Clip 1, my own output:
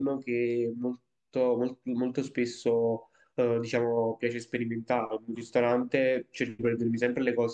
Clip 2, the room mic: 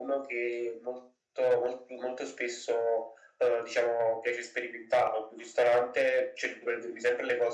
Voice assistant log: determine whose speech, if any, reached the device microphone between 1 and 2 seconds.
echo only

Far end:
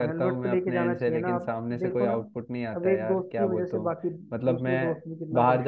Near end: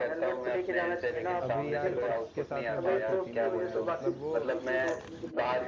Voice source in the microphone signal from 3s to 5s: both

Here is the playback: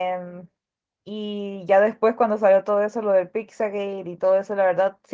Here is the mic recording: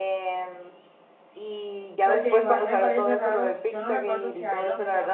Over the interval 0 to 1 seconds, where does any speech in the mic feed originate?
echo only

